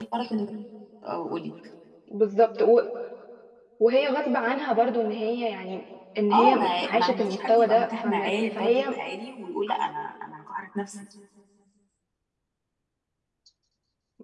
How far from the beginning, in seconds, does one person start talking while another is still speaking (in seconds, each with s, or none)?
6.3 s